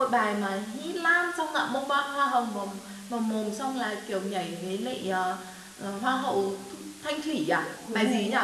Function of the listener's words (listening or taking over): taking over